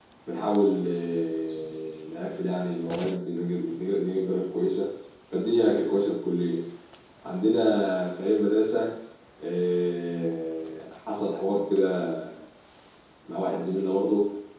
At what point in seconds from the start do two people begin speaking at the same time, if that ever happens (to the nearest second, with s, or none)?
none